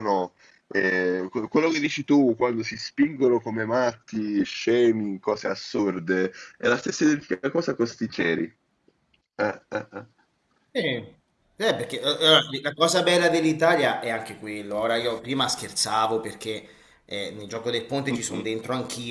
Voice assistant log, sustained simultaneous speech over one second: none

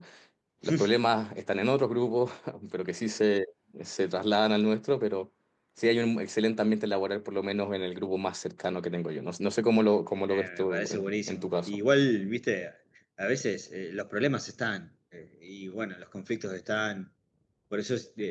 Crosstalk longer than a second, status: present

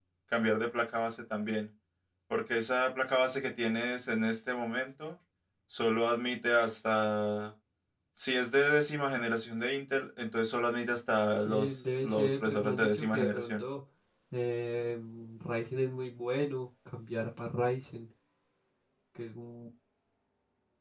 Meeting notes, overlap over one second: present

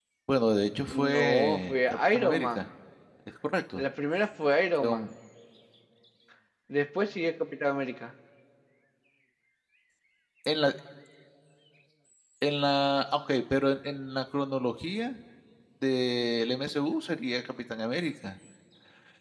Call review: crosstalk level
present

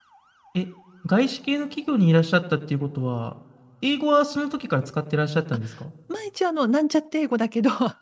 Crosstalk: none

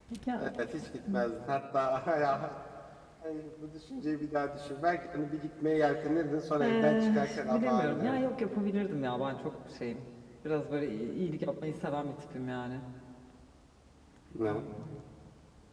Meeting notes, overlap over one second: present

